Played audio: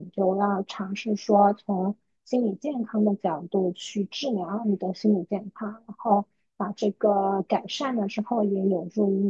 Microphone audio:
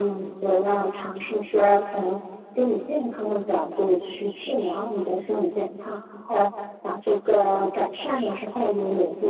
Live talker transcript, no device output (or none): none